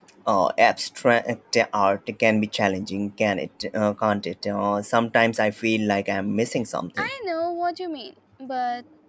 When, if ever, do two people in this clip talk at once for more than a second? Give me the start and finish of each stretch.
none

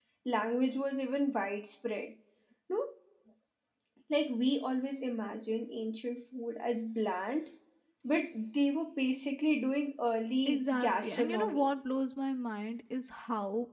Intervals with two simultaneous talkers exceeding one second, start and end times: 10.4-11.7

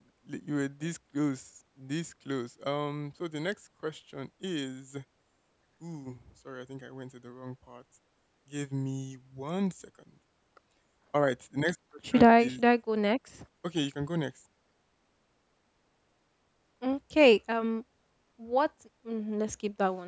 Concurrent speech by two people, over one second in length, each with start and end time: none

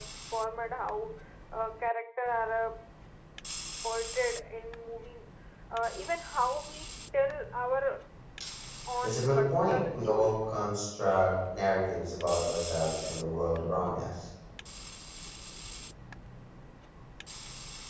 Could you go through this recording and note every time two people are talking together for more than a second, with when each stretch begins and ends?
9.0-10.3

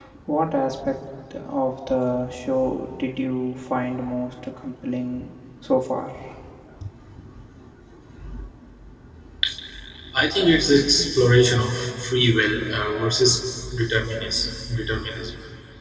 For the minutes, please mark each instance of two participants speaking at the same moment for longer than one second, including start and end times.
none

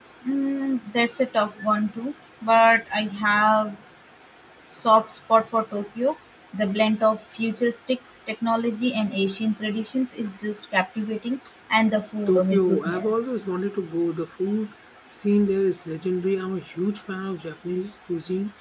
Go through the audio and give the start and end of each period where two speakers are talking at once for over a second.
12.3-13.7

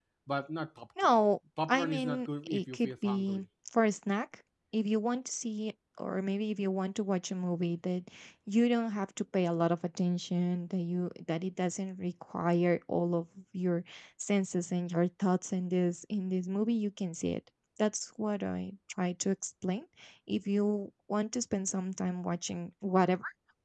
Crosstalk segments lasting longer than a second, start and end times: 1.7-3.5

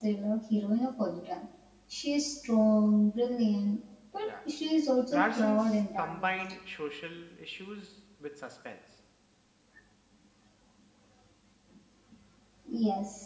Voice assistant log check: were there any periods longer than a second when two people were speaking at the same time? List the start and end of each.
5.1-6.5

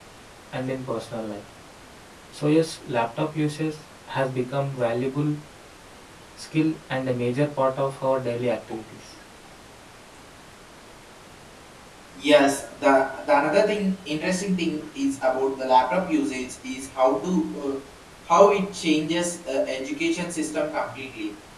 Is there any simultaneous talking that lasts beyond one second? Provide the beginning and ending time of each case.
none

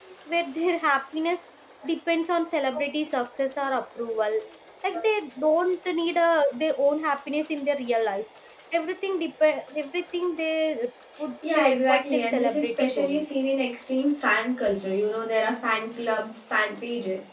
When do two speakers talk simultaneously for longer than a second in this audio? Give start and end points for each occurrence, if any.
11.6-13.2

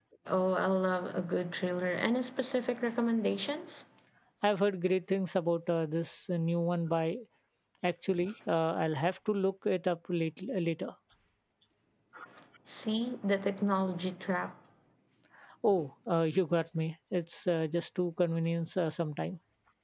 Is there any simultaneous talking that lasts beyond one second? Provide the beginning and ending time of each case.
none

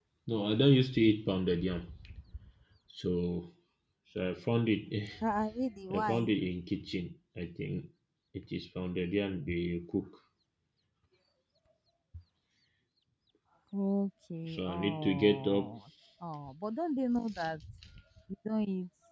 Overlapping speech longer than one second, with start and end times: 14.5-15.7

